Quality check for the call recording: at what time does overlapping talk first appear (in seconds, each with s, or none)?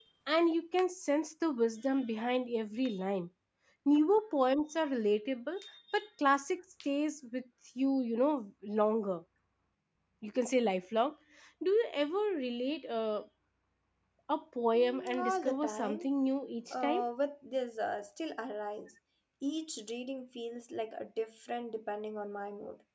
14.8 s